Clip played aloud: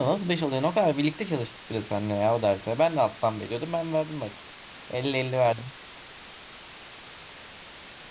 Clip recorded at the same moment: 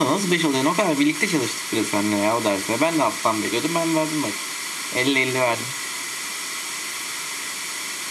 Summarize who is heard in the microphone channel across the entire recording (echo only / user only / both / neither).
echo only